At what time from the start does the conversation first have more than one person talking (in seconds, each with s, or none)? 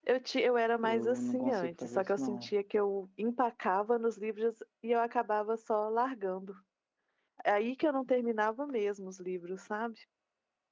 0.8 s